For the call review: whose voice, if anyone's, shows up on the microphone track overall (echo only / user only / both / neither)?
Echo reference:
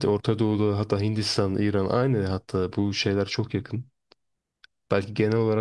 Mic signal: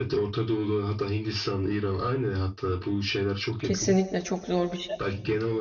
both